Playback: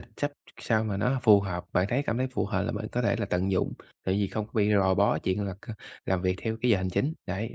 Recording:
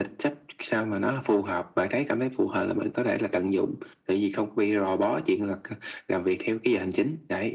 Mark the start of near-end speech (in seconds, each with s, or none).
none